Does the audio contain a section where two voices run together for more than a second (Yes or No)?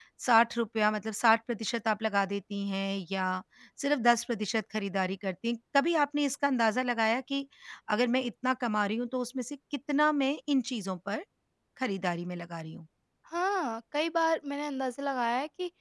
No